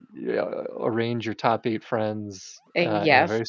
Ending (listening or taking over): listening